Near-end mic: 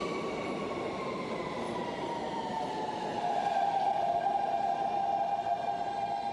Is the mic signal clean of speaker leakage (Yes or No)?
Yes